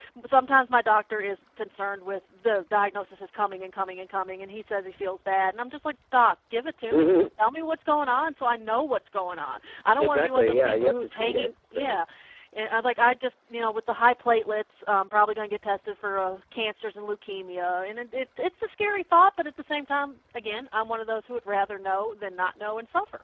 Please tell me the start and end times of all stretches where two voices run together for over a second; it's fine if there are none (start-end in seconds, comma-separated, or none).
10.0-12.0